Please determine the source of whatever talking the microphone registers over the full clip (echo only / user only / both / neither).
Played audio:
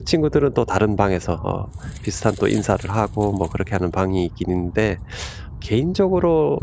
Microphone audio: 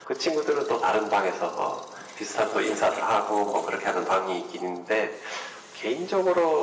echo only